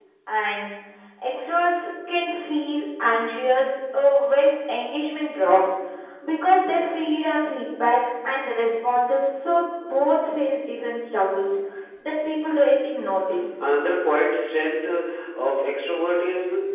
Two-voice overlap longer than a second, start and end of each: none

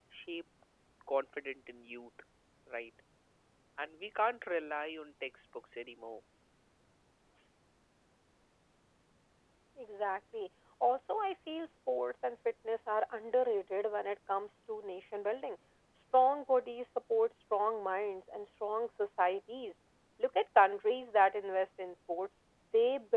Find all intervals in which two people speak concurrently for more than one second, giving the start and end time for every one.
none

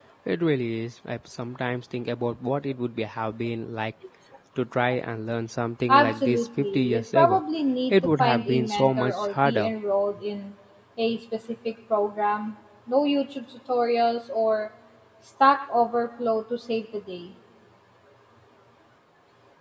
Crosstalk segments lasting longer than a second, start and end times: 5.9-7.4, 7.9-9.7

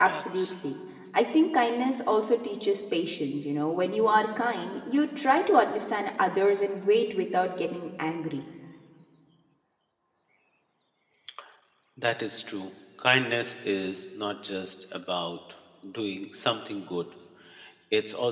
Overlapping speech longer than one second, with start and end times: none

